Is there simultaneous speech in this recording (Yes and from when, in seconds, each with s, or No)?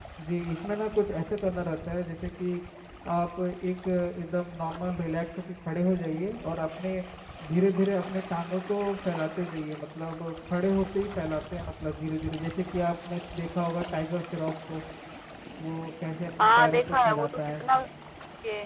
Yes, from 16.4 s